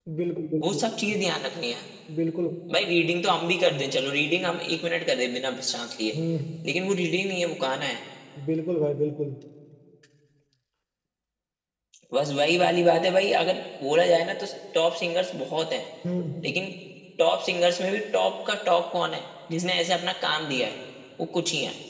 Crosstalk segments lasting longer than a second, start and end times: none

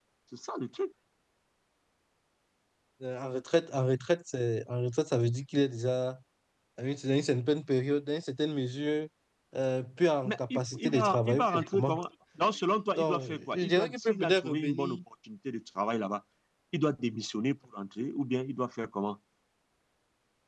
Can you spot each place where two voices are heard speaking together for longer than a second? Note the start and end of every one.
10.2-12.0, 13.0-15.0

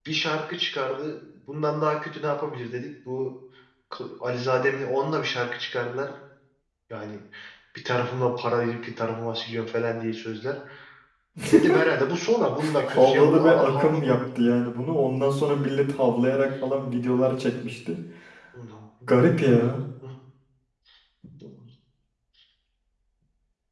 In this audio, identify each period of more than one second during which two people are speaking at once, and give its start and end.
12.6-14.1

